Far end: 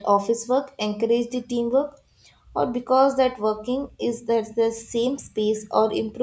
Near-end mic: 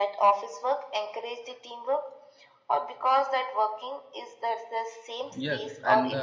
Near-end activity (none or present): present